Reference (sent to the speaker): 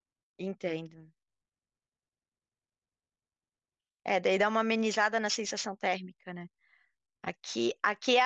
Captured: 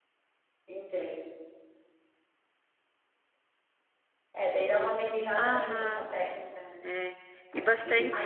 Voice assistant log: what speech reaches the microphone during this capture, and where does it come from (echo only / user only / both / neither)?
both